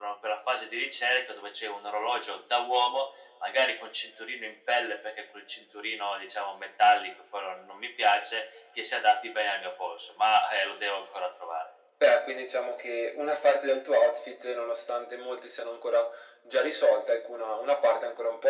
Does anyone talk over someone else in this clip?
No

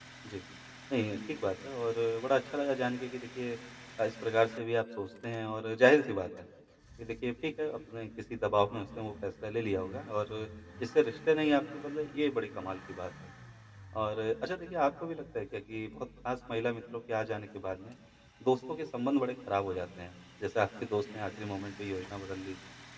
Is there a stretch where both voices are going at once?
No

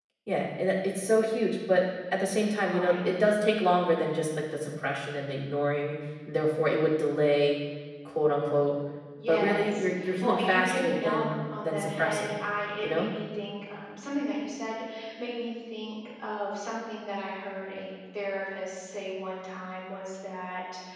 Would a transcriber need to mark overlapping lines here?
Yes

